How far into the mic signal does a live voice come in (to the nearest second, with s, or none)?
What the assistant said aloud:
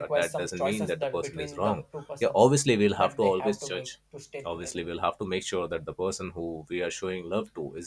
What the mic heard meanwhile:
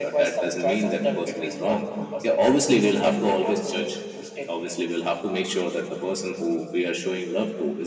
none